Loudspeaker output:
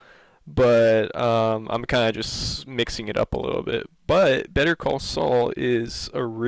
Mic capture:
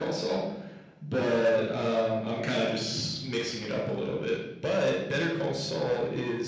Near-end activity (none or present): none